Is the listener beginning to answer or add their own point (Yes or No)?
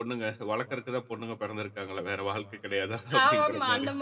Yes